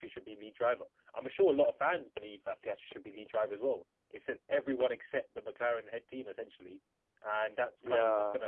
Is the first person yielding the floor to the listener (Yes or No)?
No